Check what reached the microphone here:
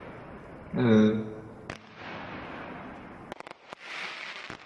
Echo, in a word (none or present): none